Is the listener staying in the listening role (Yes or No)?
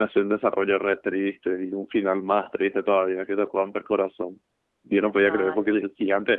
Yes